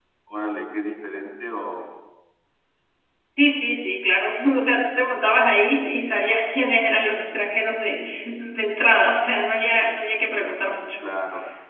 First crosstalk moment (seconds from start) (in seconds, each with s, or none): none